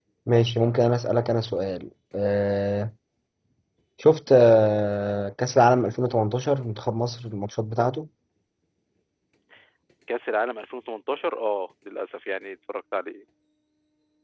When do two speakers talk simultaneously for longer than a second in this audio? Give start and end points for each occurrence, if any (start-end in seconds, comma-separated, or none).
none